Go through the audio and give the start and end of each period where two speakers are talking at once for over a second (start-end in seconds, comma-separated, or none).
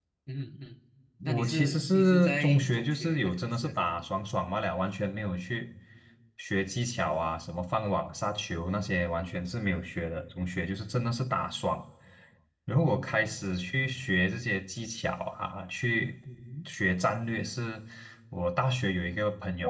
1.3-4.0